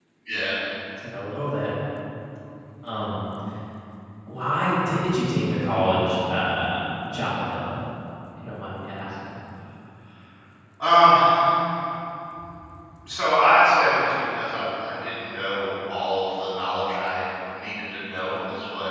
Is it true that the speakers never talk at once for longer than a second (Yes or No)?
Yes